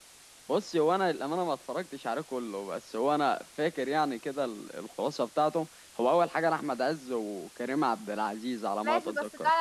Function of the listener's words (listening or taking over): taking over